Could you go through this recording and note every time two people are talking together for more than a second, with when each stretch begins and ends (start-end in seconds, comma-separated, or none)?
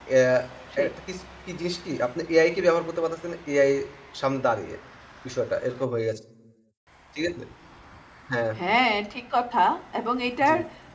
none